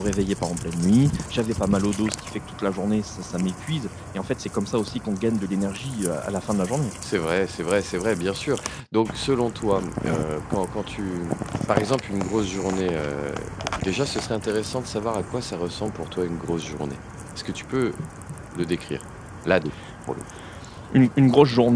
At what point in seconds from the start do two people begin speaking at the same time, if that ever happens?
none

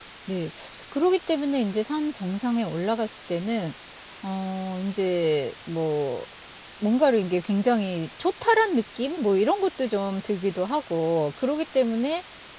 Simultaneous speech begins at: none

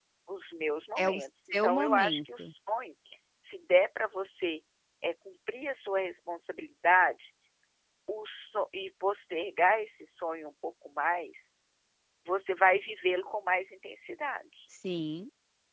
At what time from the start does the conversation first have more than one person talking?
1.0 s

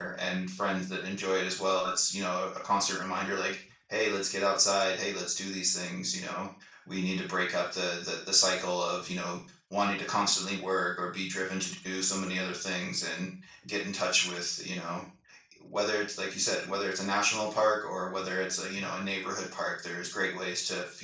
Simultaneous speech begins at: none

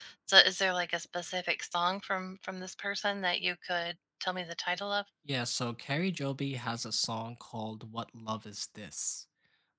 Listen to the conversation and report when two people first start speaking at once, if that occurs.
none

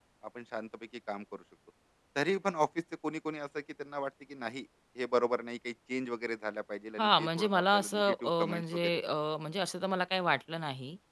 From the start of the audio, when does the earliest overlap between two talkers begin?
7.0 s

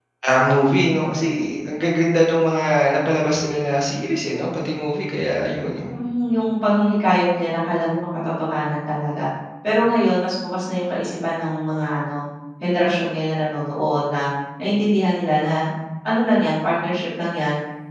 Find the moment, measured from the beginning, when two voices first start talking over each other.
none

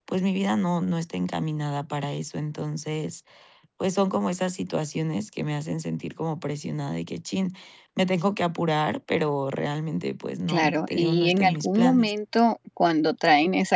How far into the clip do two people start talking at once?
10.5 s

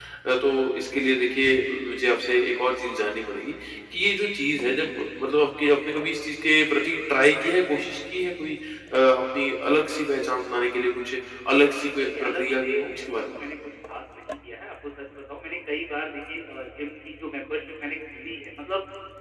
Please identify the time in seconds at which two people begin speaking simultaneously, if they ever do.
12.0 s

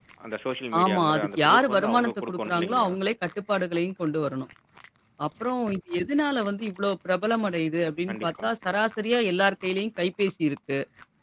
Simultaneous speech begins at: 0.8 s

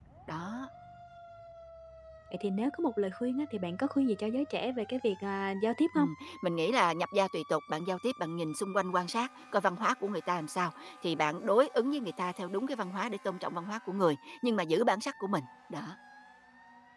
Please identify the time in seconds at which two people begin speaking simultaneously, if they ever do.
none

